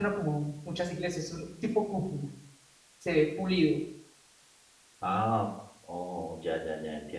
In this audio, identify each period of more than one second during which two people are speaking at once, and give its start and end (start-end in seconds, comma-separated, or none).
none